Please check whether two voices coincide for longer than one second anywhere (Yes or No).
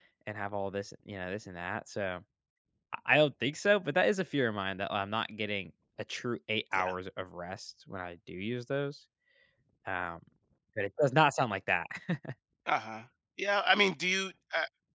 No